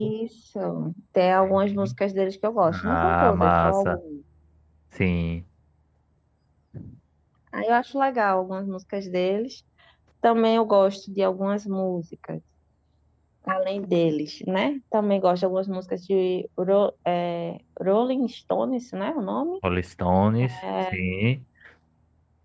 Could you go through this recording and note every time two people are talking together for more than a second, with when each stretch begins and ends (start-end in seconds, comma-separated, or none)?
2.7-4.0